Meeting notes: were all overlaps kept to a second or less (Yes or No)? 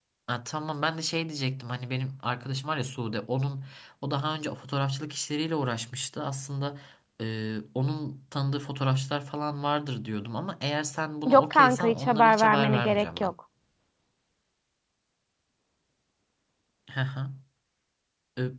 No